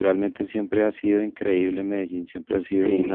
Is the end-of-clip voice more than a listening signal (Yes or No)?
No